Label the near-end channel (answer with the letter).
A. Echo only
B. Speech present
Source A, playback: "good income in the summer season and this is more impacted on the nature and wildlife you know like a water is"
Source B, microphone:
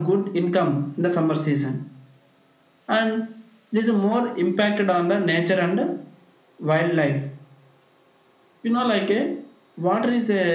A